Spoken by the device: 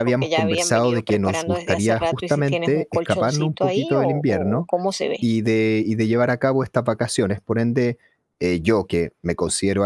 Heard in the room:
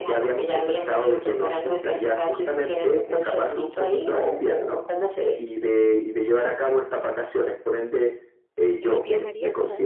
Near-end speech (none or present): present